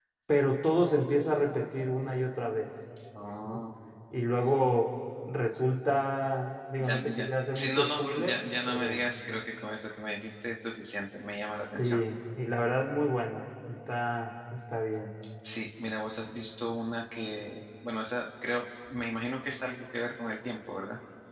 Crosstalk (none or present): present